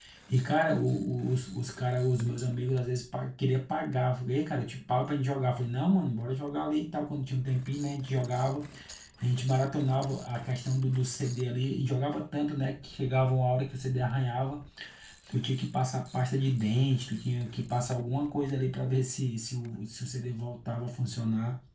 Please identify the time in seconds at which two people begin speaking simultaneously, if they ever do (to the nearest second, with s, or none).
none